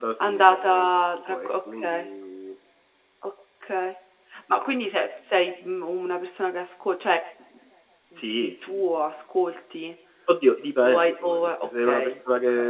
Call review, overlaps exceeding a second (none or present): present